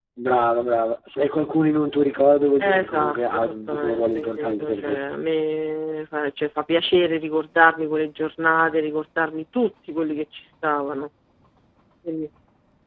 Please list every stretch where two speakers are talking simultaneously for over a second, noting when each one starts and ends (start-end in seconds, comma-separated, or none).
2.6-5.0